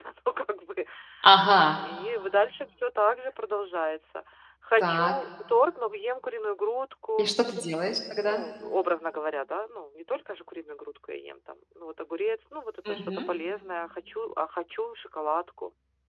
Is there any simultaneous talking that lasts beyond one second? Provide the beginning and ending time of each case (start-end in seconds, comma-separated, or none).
none